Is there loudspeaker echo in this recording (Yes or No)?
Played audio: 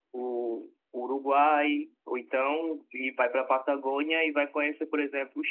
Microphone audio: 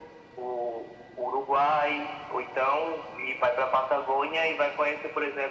Yes